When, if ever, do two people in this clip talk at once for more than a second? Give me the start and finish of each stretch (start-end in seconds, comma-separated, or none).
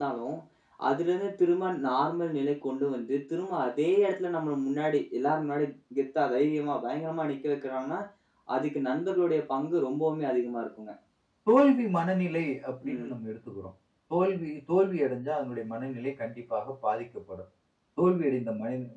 none